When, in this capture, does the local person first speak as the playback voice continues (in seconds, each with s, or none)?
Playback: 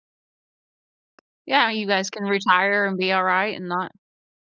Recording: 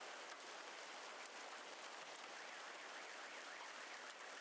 none